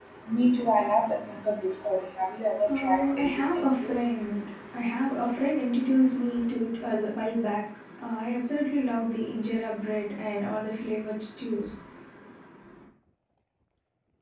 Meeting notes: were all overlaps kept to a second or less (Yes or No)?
No